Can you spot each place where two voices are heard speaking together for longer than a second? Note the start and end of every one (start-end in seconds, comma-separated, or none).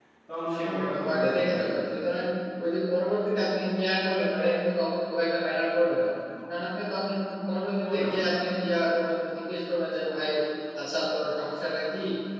0.6-1.8